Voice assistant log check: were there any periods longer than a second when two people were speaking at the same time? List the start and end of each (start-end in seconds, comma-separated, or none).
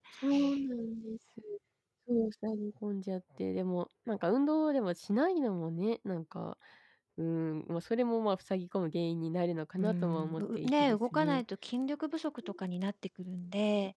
9.8-11.4